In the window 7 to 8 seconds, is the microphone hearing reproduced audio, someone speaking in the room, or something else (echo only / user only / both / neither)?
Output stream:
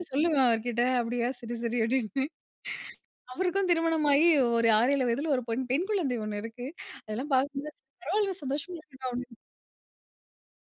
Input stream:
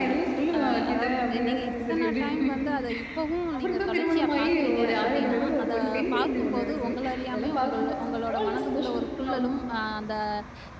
both